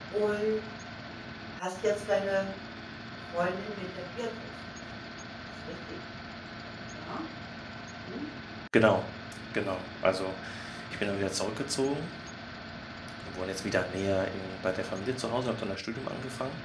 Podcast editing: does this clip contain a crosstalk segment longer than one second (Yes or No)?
No